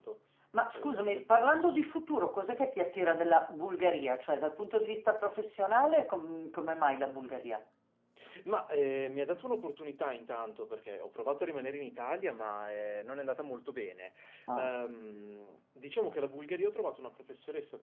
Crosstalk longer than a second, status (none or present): none